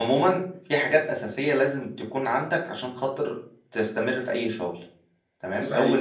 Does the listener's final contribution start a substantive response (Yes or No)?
No